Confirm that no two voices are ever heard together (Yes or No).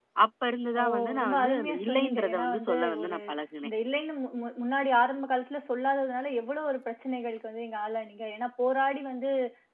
No